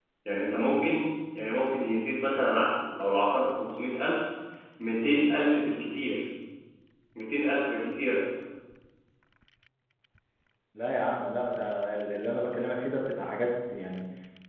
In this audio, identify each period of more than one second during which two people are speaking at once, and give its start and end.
none

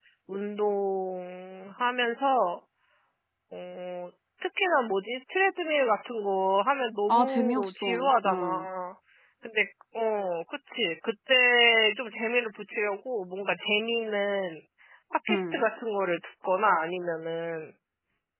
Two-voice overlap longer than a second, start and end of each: 7.1-8.7

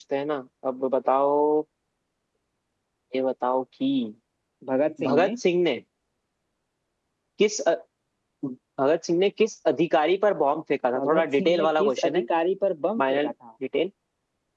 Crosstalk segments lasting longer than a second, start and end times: 11.0-12.2

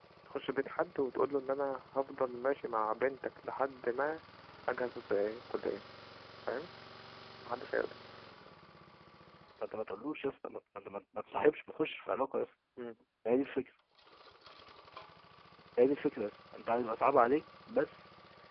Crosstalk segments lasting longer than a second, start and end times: none

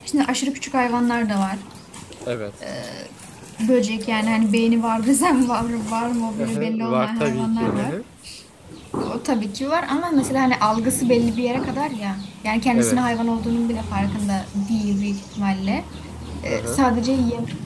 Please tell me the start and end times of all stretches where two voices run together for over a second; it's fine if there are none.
6.4-7.9

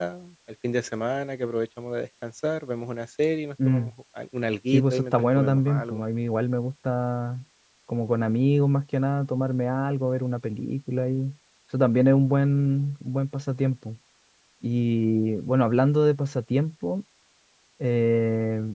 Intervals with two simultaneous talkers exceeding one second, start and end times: 4.7-6.0

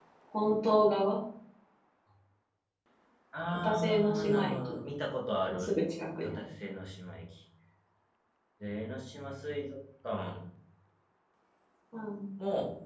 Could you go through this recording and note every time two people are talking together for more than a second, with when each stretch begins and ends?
3.5-4.8

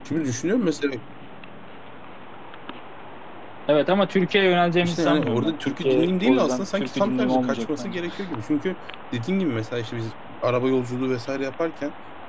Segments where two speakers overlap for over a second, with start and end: 4.8-8.0

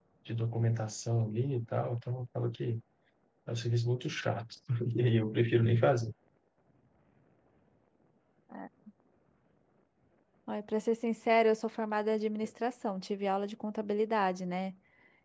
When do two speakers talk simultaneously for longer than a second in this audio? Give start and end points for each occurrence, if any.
none

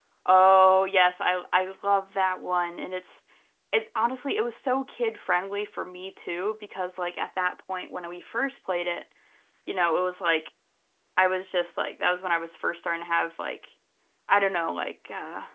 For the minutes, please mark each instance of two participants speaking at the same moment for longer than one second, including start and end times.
none

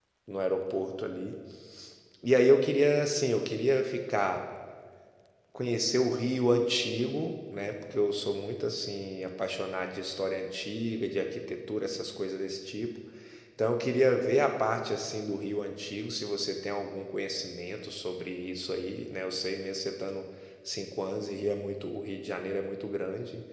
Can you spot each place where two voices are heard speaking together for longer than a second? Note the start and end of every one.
none

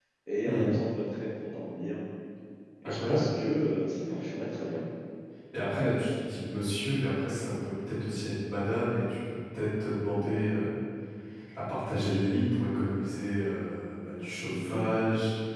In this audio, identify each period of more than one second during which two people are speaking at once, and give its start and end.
none

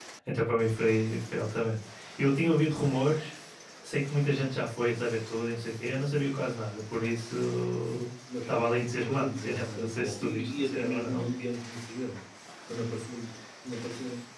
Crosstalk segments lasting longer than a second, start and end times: 9.1-11.3

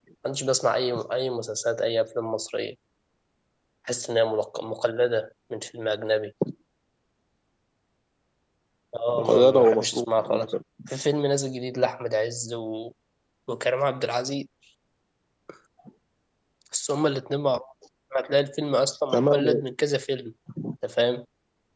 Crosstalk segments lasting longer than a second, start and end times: 9.2-10.4

